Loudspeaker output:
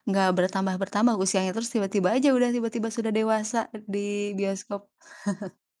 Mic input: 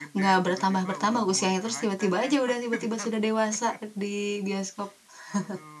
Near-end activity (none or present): present